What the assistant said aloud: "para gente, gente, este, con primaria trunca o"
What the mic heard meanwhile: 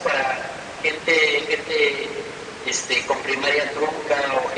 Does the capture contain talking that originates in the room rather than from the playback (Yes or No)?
No